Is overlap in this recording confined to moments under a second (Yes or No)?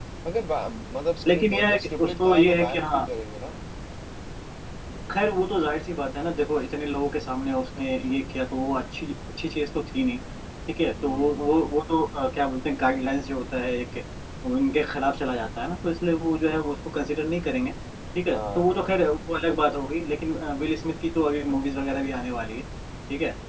No